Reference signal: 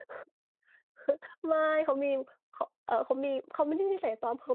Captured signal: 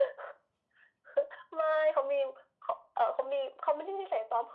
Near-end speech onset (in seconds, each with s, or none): none